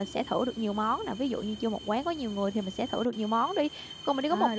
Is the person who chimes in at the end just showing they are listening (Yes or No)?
Yes